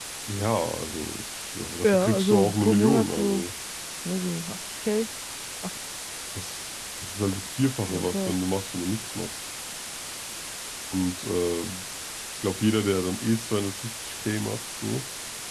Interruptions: present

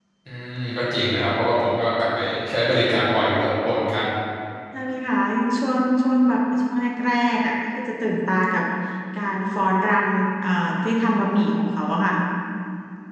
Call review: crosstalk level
none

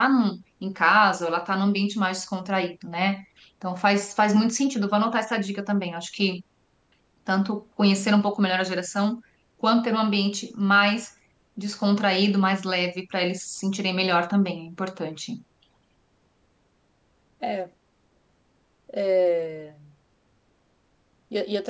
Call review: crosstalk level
none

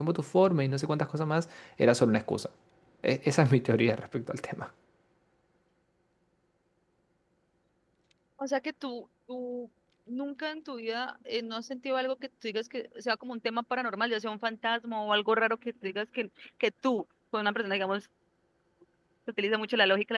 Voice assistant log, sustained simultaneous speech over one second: none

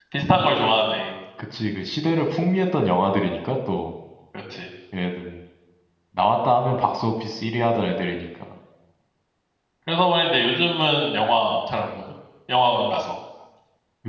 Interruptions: none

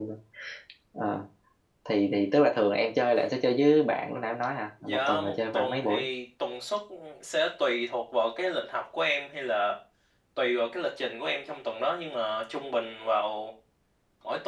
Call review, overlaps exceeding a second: present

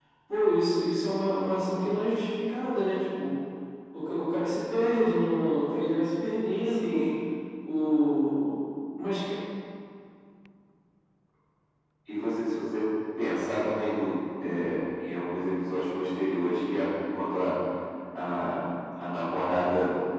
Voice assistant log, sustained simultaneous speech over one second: none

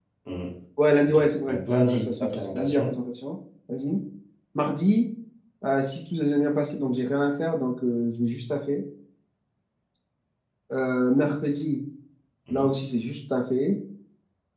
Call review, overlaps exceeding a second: present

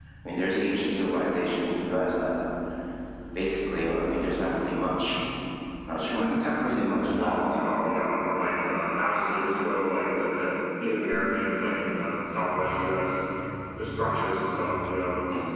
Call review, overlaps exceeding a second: none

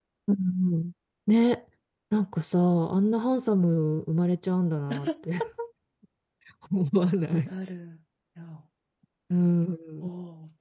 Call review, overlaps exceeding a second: none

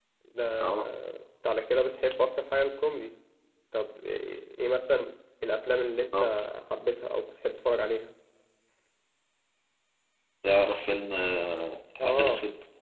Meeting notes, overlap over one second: none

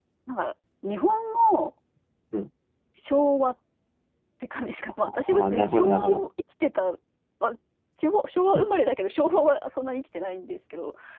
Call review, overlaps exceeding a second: present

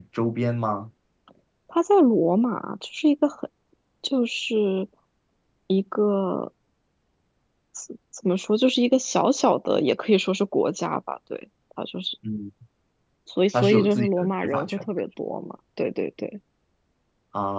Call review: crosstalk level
present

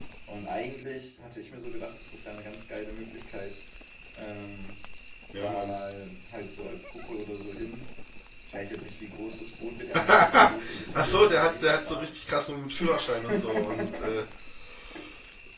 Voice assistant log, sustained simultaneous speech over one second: present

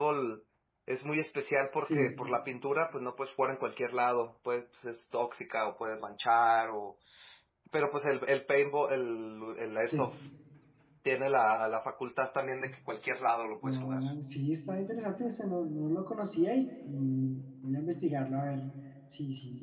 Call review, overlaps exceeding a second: none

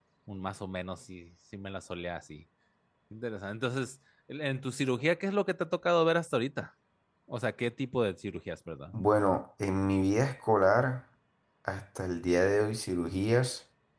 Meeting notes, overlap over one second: none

